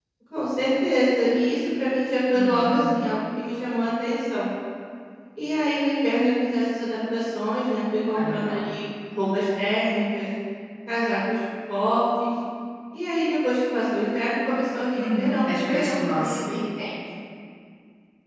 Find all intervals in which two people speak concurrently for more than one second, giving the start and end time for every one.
15.0-16.4

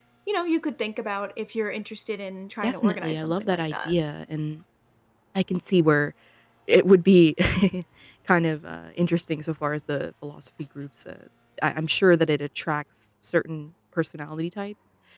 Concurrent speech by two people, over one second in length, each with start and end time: 2.6-4.0

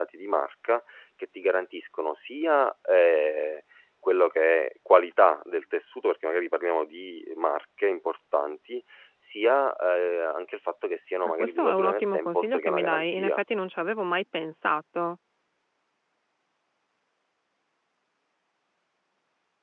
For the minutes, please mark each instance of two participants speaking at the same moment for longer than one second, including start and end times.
11.4-13.3

